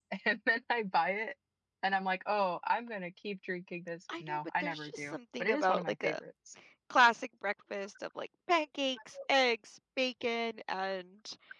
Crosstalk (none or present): present